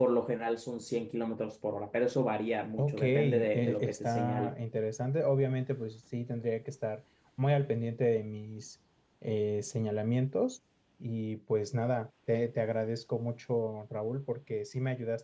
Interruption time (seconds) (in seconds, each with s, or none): 2.8 s